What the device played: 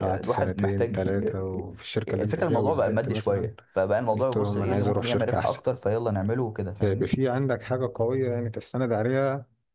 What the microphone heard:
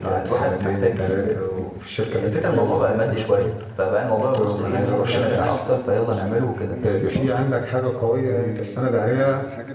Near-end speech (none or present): present